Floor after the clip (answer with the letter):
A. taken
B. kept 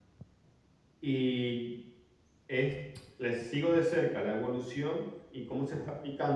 B